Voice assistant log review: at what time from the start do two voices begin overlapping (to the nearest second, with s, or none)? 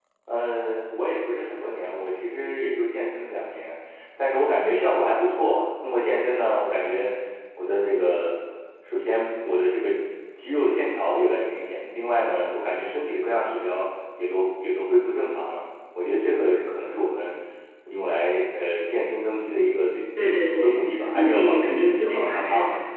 20 s